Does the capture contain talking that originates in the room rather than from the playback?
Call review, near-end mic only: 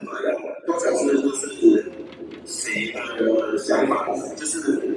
No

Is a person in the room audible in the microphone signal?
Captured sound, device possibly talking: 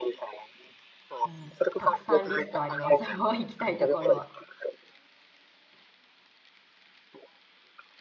Yes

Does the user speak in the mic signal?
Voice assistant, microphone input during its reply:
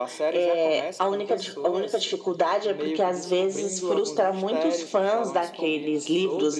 No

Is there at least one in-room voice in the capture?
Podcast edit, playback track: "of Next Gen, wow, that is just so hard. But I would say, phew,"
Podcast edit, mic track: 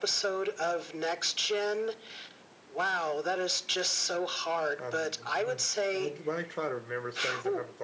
Yes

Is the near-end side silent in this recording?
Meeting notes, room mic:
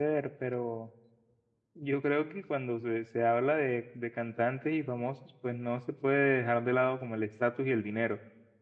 No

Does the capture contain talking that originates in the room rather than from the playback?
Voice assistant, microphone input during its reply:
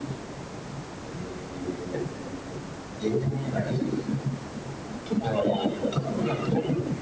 No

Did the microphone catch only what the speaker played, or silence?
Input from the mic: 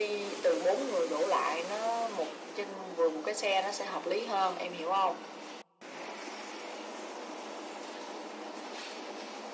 Yes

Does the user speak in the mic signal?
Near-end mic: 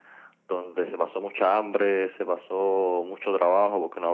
No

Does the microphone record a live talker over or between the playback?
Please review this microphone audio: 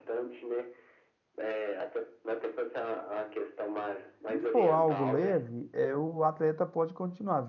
Yes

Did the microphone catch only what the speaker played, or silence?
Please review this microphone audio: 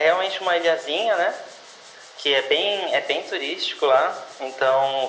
Yes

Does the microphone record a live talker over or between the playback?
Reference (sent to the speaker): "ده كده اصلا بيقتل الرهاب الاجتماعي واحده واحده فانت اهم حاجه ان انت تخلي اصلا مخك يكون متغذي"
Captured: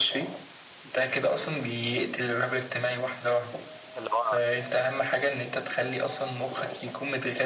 Yes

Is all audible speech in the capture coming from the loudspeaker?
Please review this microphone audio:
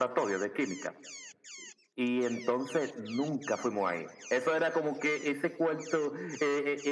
Yes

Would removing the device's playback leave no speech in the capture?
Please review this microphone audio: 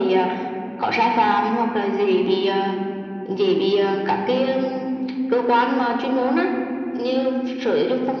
Yes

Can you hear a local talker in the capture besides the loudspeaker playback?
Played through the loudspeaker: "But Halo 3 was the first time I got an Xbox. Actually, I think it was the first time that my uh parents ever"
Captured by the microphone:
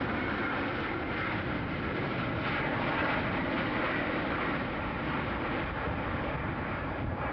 No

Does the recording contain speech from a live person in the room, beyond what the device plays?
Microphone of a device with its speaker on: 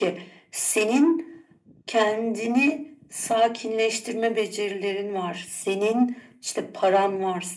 No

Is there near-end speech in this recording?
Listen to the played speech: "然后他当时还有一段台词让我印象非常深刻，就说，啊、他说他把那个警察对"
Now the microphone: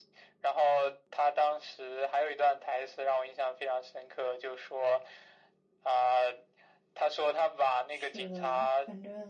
Yes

